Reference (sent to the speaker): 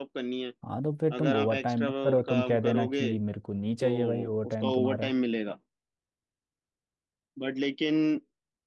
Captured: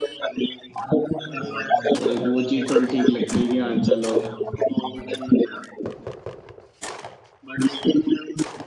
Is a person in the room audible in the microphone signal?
Yes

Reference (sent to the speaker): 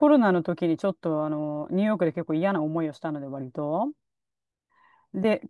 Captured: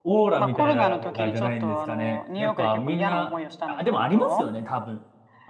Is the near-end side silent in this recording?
No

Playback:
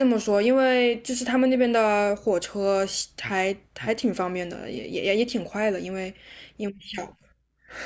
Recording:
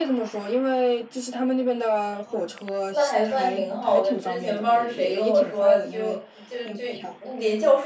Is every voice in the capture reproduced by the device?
No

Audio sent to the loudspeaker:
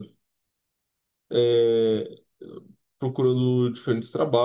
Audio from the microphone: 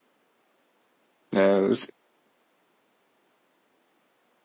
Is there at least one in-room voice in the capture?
Yes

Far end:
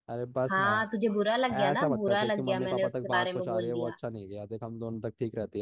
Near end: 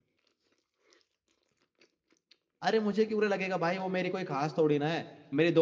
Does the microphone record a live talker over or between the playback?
Yes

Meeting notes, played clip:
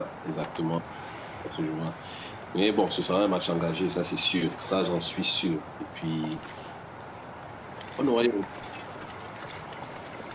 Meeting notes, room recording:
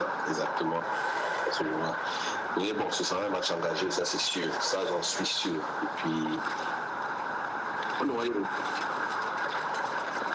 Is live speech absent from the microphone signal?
Yes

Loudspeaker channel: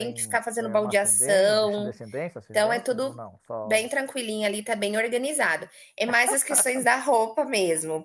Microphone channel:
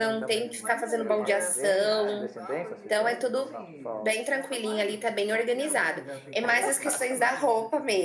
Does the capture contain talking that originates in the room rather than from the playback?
Yes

